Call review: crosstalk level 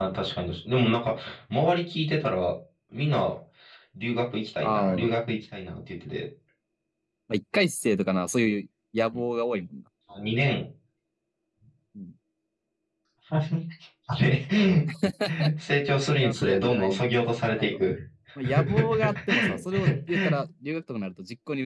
present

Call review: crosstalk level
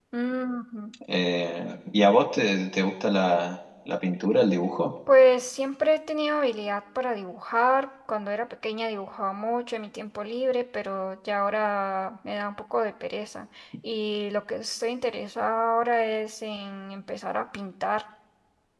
none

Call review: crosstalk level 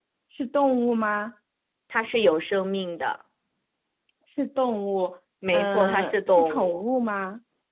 present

